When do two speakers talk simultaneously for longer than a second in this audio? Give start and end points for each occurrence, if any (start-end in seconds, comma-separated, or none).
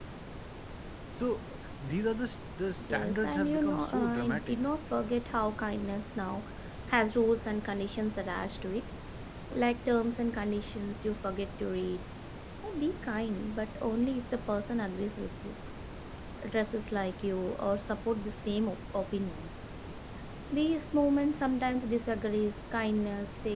2.9-4.6